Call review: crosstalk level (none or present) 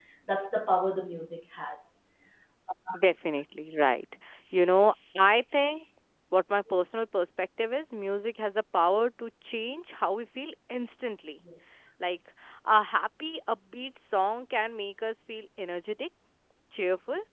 none